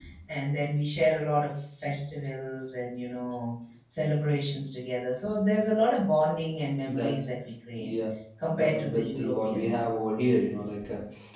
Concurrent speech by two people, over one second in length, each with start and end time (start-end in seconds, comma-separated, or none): 8.5-9.8